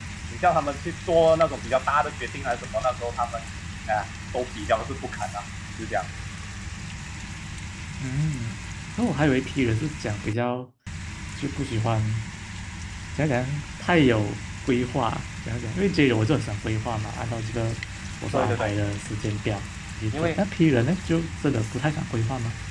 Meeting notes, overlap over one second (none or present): none